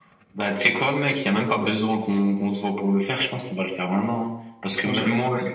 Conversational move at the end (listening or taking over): listening